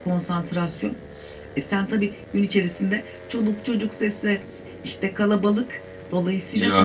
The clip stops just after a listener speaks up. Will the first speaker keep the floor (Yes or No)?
No